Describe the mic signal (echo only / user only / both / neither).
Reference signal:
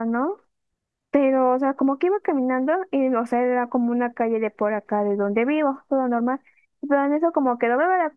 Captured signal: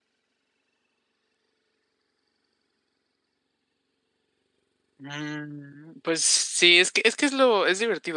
user only